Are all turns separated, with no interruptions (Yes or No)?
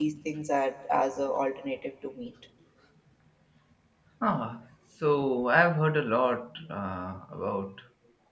Yes